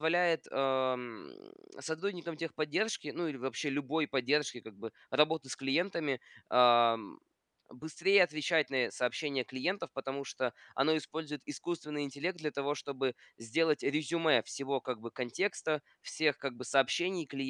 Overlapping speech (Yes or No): No